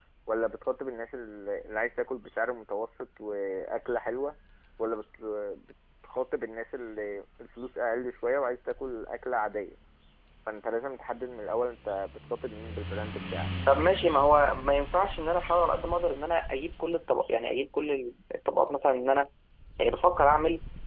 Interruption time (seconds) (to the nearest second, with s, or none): none